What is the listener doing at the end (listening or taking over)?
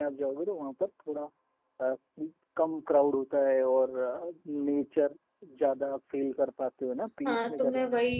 taking over